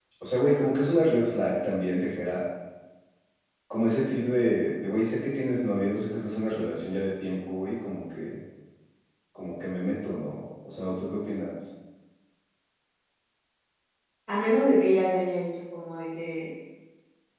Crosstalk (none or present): none